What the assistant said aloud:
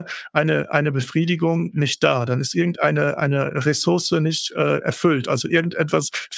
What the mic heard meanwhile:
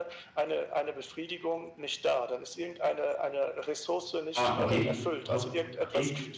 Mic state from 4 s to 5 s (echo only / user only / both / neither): both